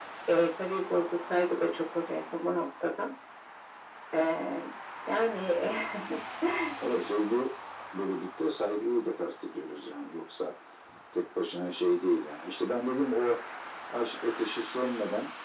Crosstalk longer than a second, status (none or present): none